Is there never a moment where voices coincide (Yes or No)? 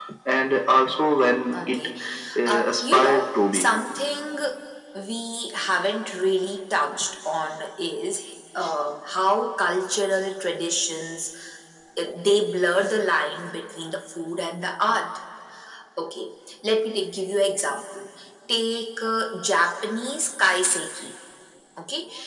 No